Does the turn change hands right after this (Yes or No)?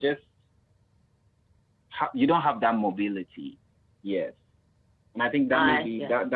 No